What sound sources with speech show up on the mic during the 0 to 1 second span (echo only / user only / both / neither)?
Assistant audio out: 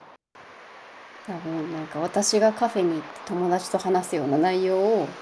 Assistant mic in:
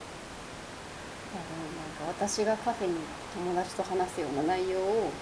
neither